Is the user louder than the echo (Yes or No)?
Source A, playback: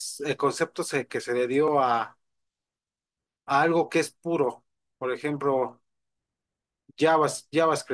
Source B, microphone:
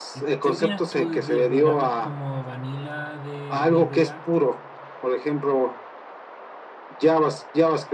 No